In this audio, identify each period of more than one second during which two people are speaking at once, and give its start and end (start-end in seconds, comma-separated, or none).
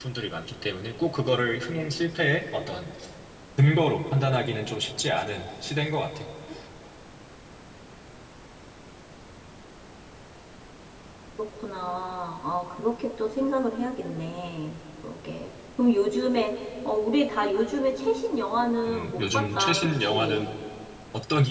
18.9-20.4